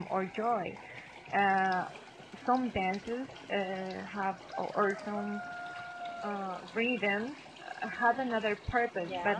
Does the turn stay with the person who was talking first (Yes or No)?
Yes